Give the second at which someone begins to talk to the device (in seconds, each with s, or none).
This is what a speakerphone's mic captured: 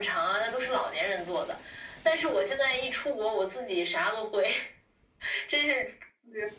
none